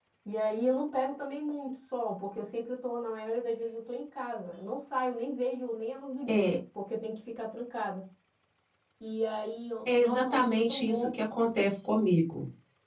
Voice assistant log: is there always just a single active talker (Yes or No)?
No